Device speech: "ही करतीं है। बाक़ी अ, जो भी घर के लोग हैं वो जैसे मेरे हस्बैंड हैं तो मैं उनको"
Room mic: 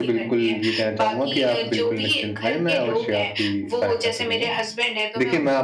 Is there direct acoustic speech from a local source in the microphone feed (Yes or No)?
Yes